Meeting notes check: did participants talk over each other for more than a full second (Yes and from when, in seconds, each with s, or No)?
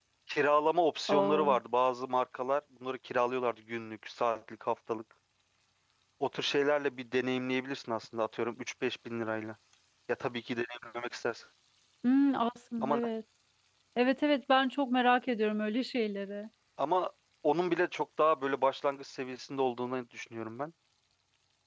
No